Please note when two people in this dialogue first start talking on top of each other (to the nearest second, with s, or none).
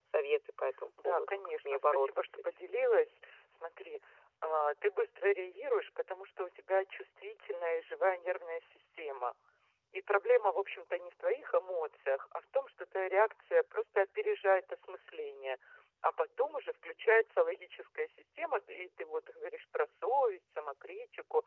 1 s